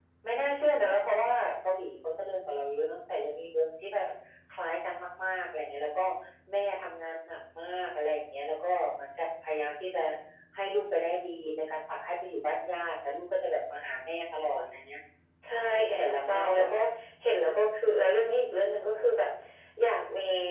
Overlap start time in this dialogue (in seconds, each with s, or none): 15.5 s